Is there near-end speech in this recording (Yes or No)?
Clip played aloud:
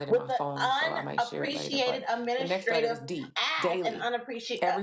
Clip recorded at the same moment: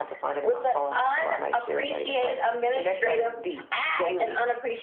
No